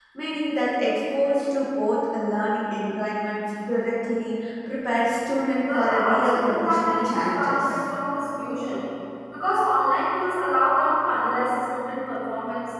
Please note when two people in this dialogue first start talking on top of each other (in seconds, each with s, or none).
5.6 s